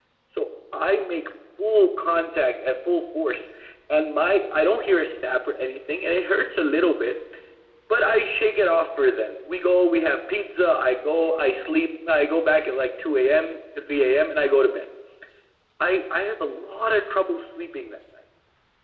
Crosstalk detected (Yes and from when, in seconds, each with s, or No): No